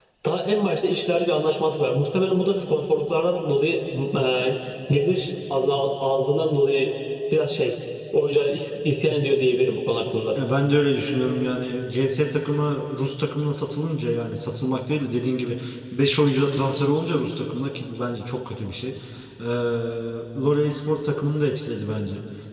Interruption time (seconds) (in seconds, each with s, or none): none